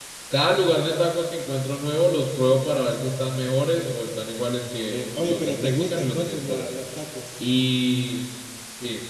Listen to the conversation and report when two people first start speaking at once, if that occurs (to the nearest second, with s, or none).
5 s